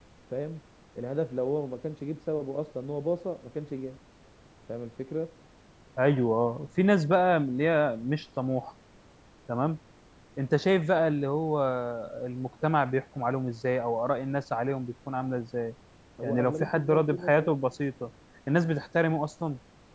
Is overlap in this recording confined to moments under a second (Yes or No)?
No